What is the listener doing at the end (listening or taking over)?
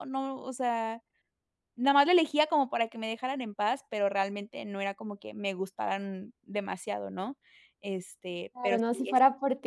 taking over